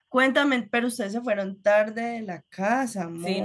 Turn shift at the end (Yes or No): Yes